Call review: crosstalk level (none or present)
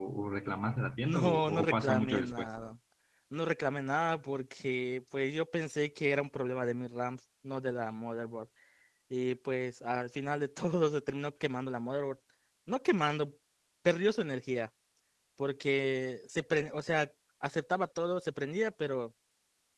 present